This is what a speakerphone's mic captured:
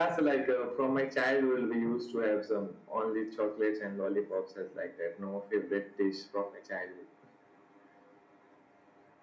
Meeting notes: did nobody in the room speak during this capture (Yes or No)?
Yes